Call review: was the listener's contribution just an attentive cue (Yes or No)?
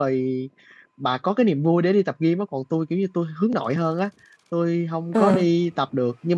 Yes